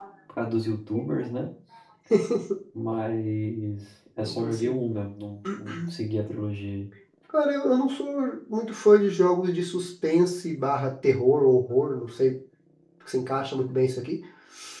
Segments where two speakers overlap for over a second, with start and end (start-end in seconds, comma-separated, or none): none